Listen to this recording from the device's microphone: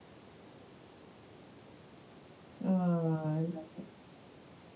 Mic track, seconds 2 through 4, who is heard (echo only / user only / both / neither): user only